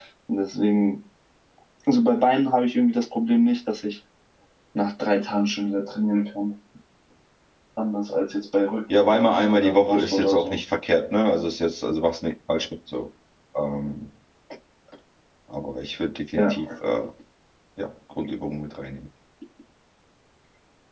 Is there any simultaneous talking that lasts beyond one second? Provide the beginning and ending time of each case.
8.9-10.6

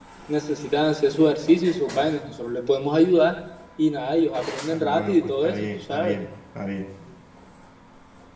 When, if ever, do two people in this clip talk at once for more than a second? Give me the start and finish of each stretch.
4.7-6.2

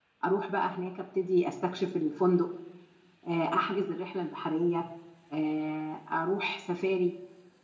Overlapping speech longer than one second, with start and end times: none

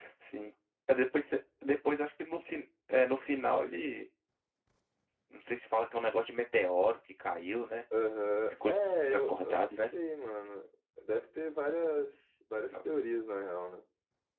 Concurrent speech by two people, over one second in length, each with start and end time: 8.5-9.8

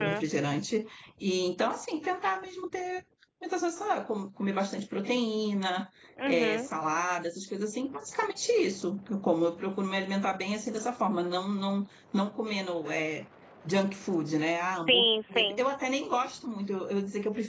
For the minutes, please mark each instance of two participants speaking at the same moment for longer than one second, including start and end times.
none

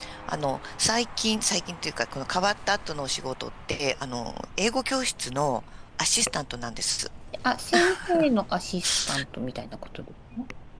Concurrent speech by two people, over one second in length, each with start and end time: none

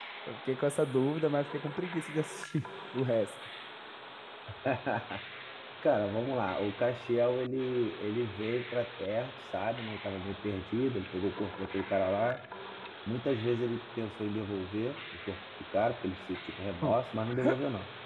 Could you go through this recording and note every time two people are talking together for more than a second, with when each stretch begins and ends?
none

